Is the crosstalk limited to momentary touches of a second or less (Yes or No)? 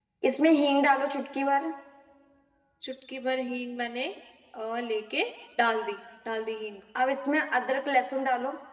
Yes